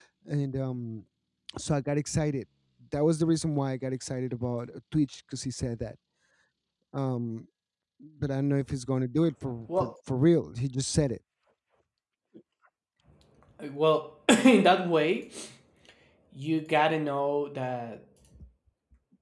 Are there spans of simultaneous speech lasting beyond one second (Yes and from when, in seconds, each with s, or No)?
No